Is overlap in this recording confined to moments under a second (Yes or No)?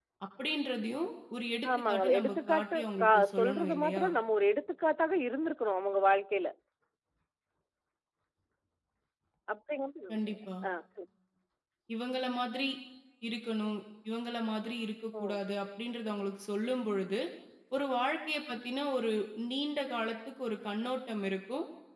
No